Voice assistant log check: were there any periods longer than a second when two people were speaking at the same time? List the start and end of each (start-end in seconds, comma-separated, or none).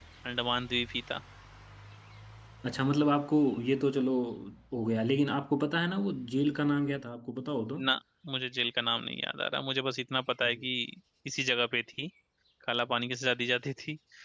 none